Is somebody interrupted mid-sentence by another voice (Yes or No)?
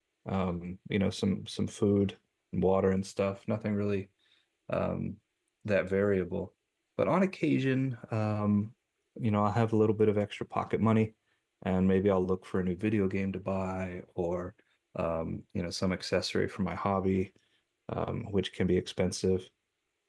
No